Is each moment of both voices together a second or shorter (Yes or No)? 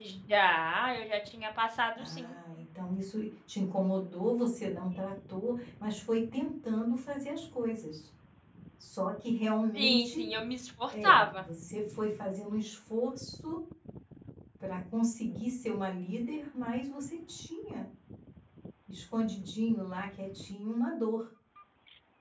Yes